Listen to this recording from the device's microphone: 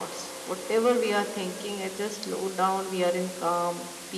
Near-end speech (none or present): none